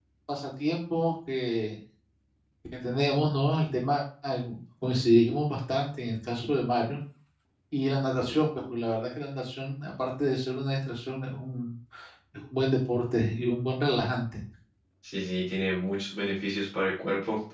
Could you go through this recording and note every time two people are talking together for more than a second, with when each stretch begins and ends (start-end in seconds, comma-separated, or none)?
none